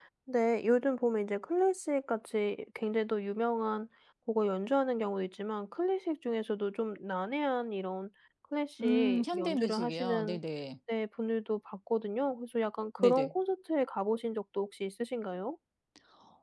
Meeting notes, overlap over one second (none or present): present